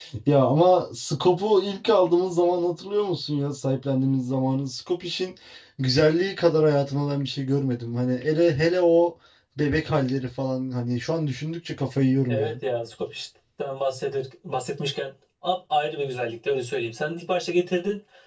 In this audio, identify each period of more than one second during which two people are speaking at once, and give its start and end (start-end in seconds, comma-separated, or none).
none